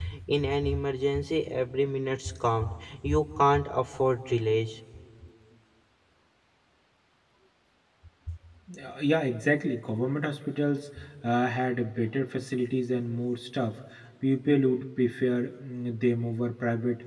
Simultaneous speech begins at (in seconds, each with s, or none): none